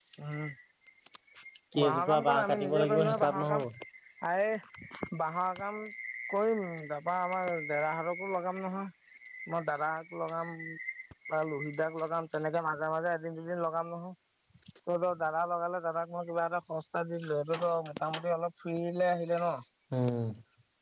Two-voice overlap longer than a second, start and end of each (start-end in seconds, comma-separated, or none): 1.8-3.6